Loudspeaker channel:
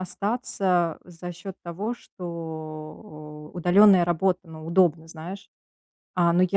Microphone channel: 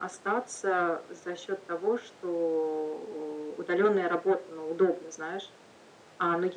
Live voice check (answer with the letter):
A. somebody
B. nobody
B